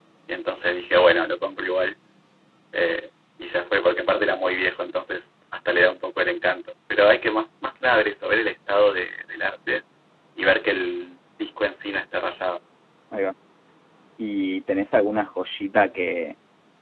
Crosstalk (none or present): none